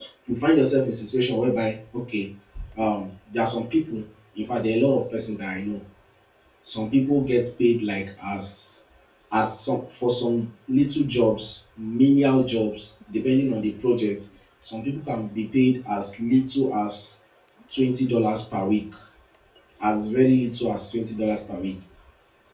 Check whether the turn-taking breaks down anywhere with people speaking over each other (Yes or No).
No